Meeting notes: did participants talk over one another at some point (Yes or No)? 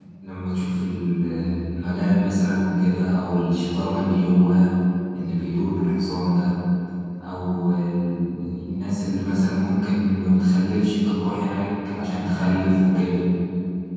No